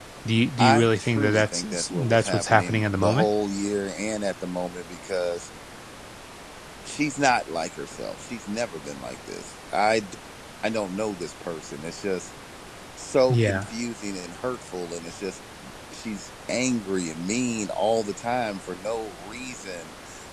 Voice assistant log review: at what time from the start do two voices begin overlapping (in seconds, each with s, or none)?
0.6 s